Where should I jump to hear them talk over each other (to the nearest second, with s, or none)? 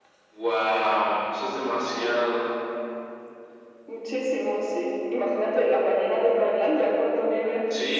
none